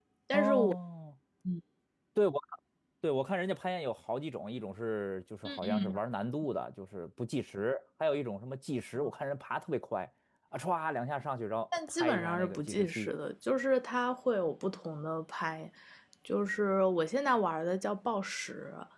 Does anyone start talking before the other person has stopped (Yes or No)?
Yes